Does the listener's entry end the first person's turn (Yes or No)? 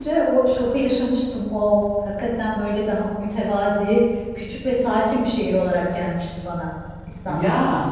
Yes